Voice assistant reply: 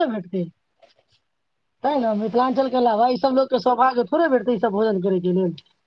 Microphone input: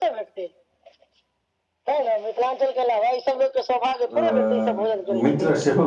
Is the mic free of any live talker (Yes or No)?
No